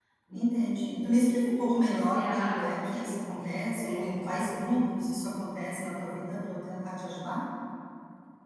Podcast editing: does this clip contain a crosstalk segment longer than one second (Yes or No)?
Yes